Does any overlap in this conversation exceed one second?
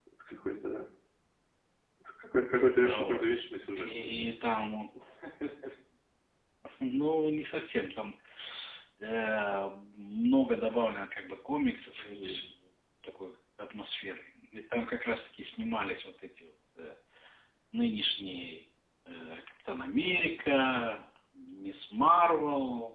No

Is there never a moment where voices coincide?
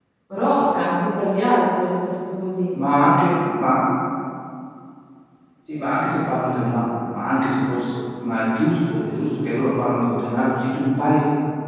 Yes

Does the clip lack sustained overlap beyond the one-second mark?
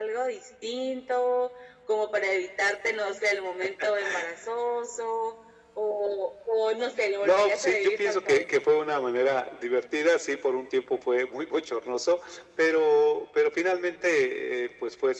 No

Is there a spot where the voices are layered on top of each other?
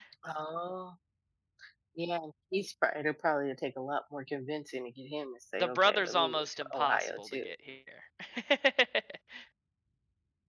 Yes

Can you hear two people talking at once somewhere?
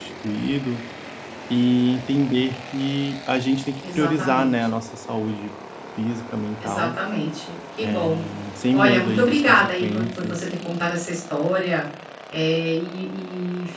Yes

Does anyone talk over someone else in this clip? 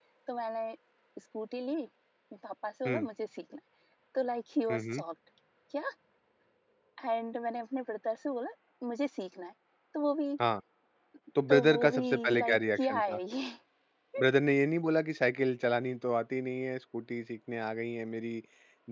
Yes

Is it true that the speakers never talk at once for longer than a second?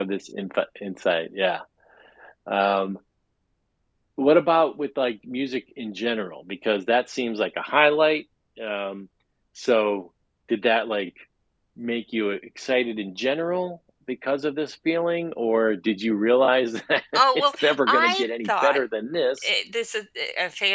No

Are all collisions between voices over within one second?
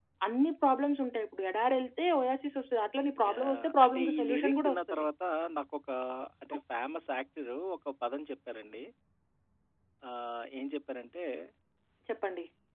No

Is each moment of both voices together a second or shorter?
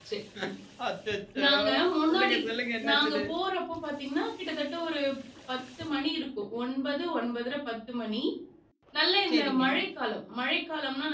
Yes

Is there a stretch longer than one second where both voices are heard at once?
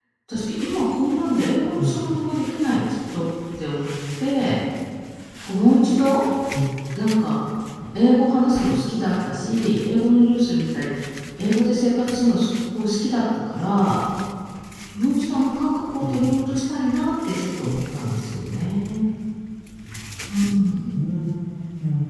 No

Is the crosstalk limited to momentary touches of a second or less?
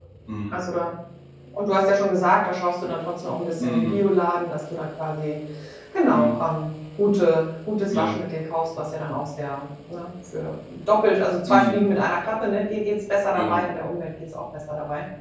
Yes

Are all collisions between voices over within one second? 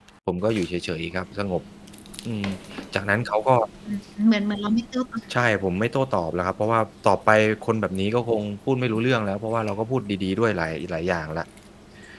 Yes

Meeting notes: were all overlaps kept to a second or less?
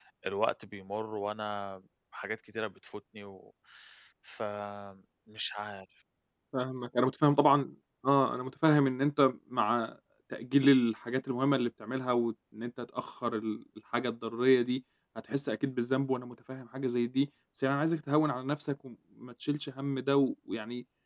Yes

